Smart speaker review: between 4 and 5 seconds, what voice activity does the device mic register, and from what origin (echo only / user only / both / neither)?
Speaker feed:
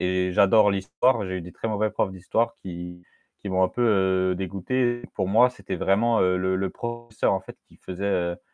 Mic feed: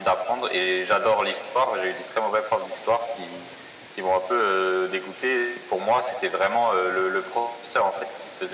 echo only